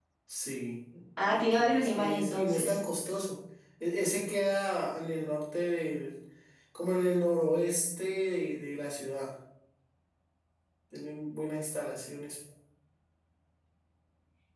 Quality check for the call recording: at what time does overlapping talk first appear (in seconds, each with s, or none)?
1.2 s